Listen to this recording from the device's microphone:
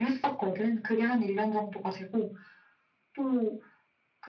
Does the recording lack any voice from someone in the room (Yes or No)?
Yes